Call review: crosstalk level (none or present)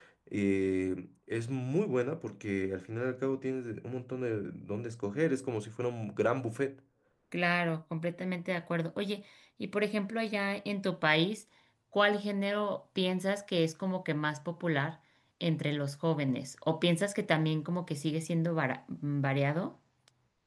none